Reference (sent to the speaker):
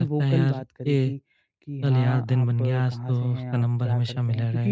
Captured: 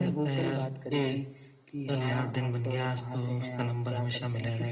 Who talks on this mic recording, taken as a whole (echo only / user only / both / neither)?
echo only